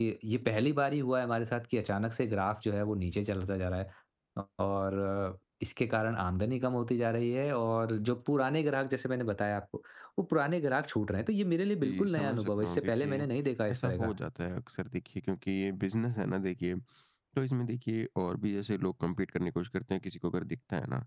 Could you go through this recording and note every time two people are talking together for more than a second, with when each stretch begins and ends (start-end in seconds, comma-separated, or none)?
11.8-13.3